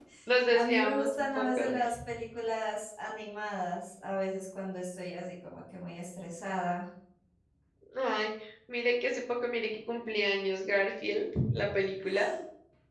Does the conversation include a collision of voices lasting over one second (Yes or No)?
Yes